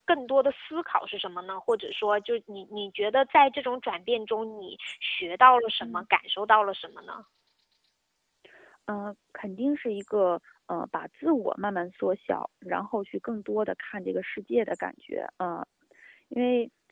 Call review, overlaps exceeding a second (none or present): none